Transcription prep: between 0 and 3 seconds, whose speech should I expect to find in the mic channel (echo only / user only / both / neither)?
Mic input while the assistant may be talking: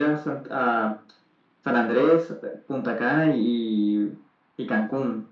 echo only